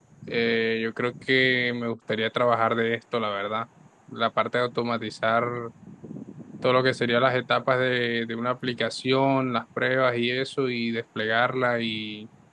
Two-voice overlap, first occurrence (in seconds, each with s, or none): none